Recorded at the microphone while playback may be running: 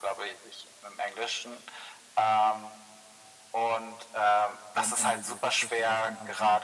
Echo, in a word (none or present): present